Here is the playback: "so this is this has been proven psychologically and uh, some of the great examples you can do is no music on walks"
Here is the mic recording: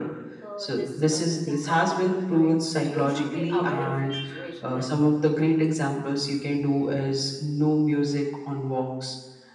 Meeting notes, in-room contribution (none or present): present